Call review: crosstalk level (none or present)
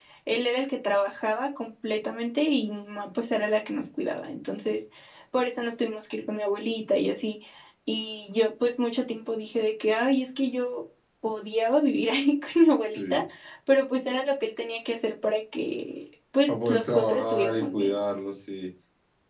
present